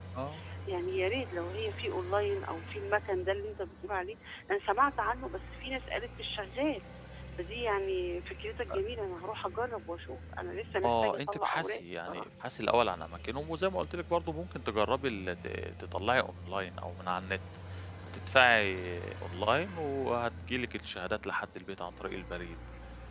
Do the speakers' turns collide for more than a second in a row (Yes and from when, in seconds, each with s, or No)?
Yes, from 10.8 s